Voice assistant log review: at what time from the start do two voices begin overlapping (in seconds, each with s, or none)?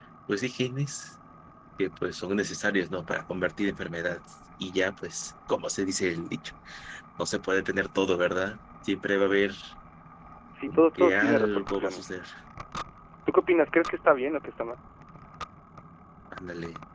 10.7 s